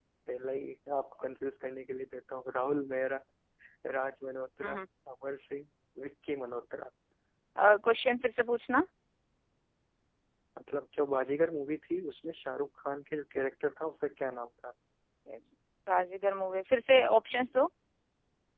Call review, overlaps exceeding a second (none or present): none